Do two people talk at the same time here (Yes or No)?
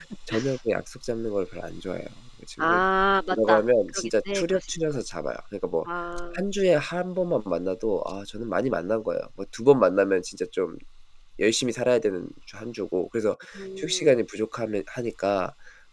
Yes